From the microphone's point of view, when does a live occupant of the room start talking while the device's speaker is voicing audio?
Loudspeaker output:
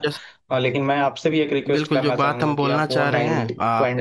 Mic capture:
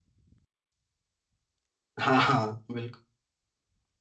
2.0 s

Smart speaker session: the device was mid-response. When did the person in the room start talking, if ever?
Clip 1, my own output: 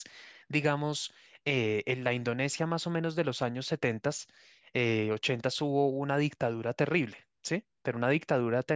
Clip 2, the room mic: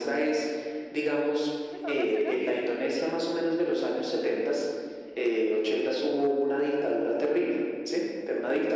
1.7 s

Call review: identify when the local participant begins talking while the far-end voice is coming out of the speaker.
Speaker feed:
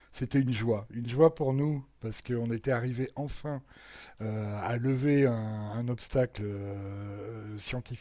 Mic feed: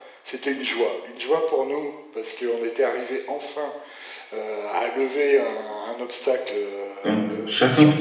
7.0 s

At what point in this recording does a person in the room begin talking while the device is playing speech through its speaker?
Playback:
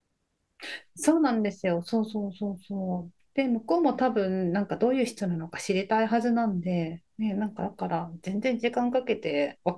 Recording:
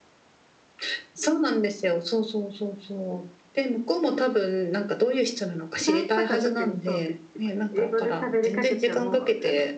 5.7 s

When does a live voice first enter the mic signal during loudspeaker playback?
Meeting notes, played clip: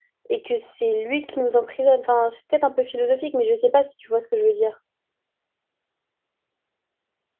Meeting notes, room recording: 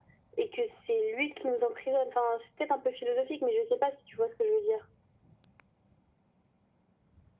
none

